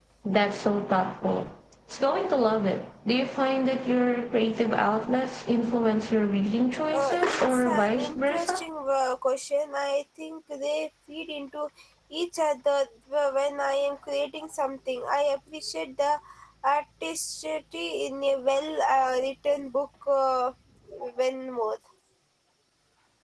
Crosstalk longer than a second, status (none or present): present